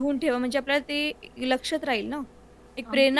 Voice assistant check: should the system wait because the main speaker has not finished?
Yes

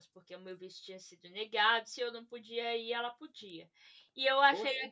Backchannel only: Yes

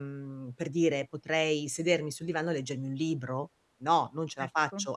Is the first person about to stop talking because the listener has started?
No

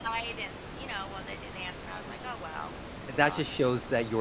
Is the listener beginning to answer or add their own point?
Yes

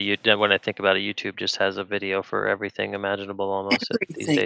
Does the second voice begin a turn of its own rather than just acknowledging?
Yes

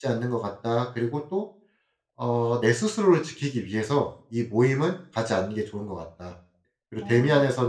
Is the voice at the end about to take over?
No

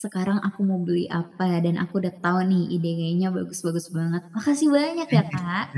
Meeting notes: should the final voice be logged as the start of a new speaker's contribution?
Yes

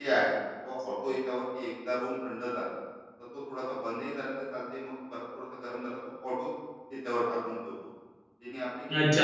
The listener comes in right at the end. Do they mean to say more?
Yes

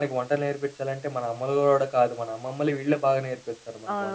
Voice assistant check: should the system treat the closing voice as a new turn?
Yes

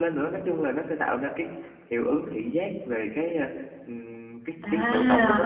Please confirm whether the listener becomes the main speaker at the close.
Yes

